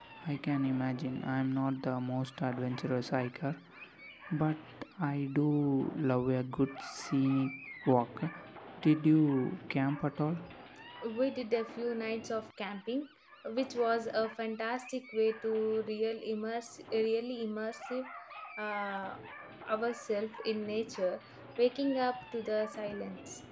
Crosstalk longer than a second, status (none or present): none